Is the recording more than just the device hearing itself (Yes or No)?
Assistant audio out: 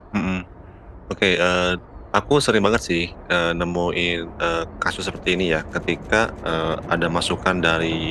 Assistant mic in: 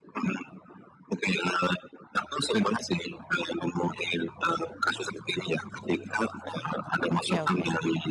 Yes